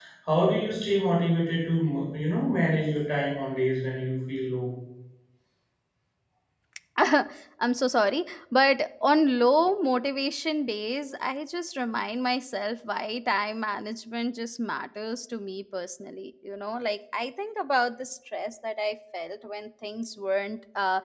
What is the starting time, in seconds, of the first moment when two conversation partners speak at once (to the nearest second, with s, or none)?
none